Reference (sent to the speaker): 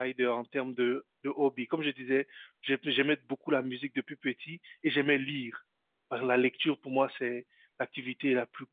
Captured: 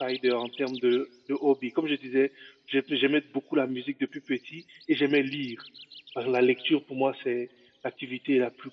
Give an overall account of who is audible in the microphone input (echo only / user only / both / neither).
echo only